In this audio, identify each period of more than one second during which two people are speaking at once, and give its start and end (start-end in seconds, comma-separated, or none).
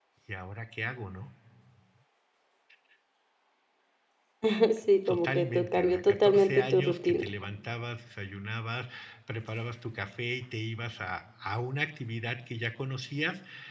5.1-7.2